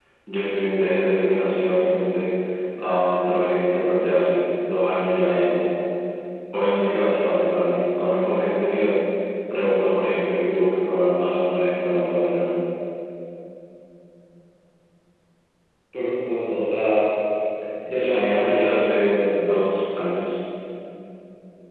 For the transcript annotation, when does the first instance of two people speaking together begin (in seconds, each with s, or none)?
17.9 s